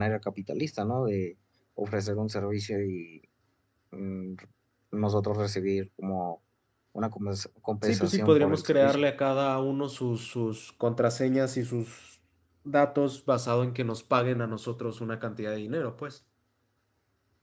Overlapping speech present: Yes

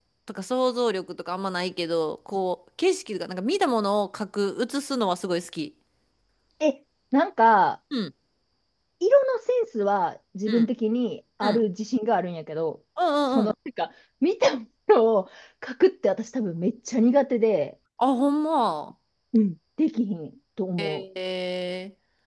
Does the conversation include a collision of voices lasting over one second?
No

